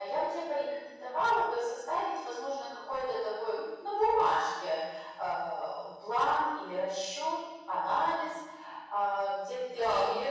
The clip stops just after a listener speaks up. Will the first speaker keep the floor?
No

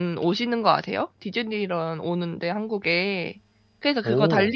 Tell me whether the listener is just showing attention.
Yes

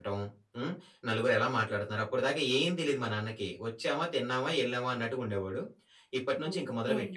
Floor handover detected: No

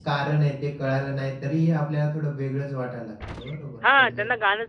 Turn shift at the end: Yes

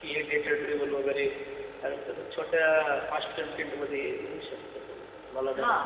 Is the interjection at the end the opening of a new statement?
Yes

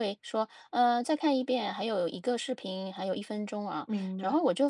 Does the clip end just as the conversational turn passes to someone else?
No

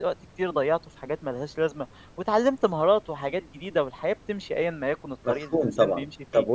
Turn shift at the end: Yes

